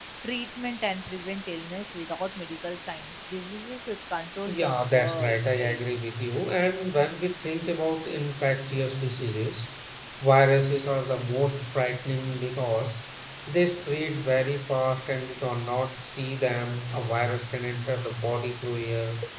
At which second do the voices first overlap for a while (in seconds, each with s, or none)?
4.5 s